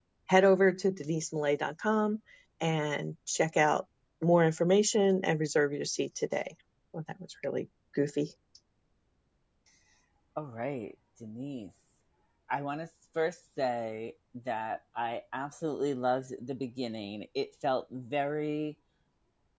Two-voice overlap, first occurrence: none

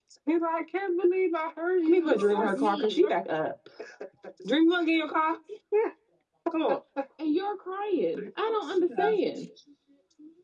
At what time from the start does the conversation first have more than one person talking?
1.9 s

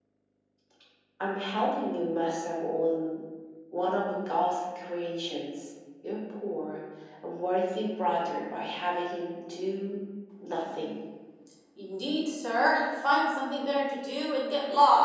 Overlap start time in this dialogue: none

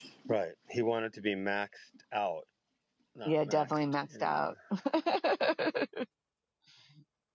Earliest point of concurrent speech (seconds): 3.2 s

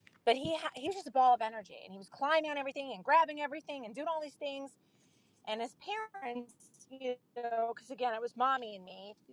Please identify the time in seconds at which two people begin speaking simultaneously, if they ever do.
none

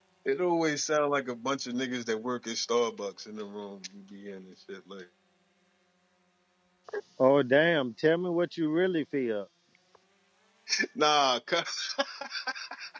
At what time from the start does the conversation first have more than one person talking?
none

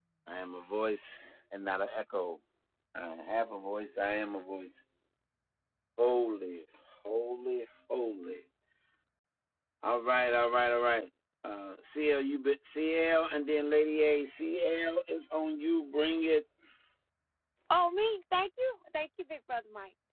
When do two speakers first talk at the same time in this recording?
none

